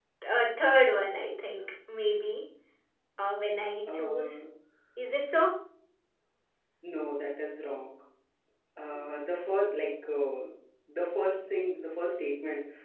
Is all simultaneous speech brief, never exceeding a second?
Yes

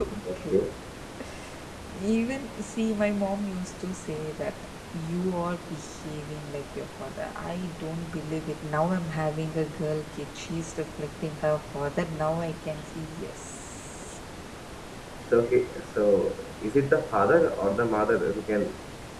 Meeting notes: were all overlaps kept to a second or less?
Yes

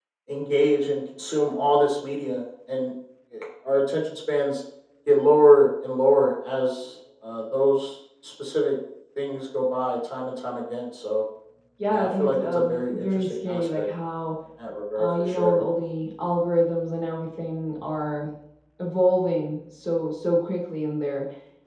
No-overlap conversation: No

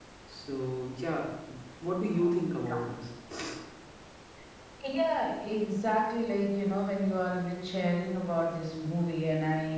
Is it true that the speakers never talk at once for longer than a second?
Yes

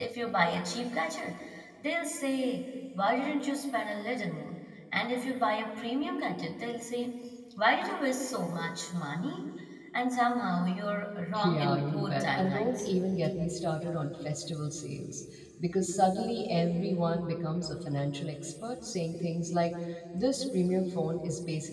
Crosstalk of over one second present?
Yes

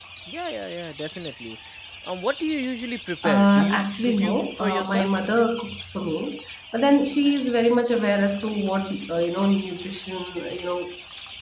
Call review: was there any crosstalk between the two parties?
Yes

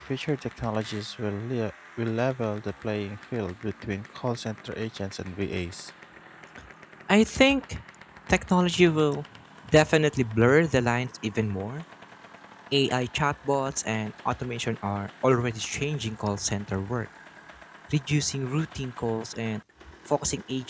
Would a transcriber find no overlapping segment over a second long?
Yes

